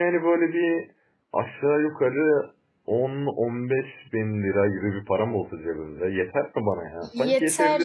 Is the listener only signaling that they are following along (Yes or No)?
No